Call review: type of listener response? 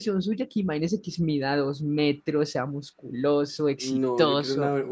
taking over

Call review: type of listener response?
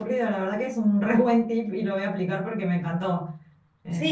taking over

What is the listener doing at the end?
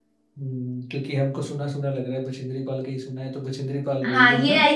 taking over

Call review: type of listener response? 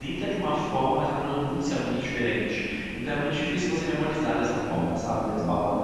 listening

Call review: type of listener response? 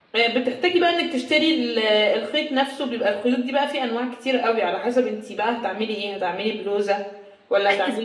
taking over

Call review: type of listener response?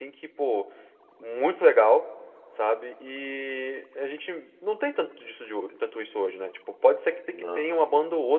listening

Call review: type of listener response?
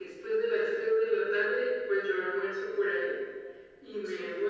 listening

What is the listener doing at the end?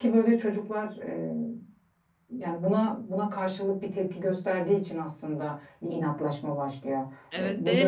taking over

